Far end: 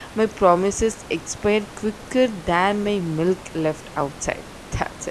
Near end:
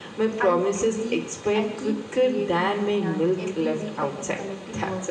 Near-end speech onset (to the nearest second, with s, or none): 0 s